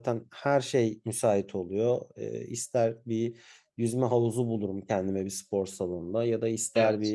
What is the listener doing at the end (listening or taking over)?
listening